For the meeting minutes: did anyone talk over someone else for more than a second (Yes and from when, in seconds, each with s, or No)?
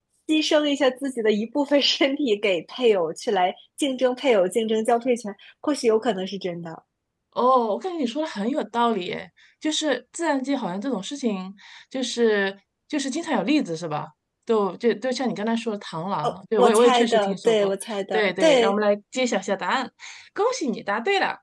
Yes, from 16.2 s